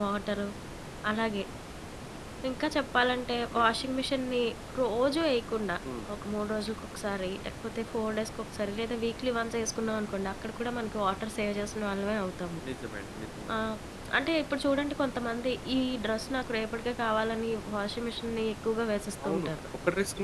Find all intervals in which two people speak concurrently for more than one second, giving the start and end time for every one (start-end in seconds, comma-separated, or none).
none